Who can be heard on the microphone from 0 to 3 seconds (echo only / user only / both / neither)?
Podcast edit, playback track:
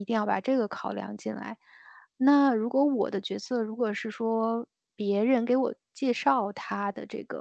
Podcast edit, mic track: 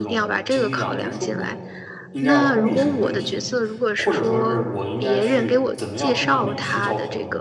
both